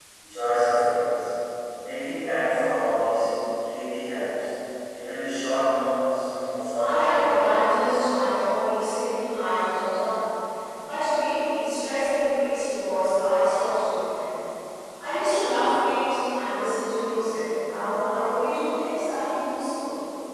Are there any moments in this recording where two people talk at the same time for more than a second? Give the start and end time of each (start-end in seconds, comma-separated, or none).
6.8-8.3